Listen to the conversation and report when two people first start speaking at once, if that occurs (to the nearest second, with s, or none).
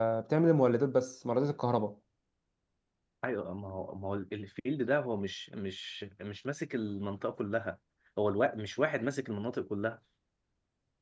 none